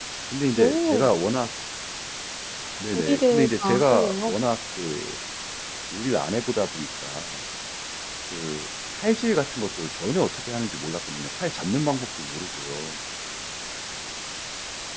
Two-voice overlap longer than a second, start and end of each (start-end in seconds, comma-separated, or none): 3.0-4.3